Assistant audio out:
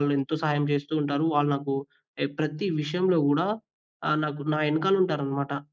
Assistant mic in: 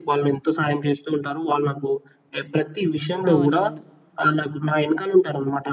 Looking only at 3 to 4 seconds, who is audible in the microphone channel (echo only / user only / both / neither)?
both